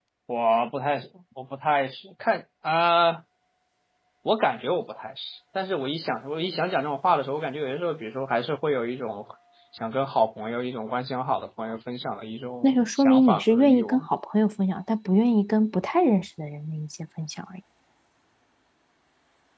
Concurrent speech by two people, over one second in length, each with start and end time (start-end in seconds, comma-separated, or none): 12.6-14.1